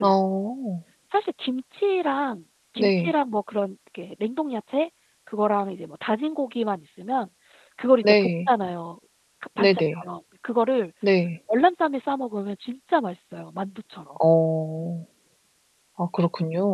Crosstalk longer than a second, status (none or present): none